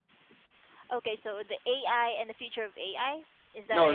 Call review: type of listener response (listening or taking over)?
taking over